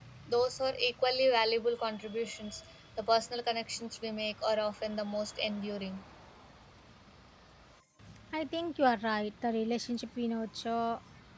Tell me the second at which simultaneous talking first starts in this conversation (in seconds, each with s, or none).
none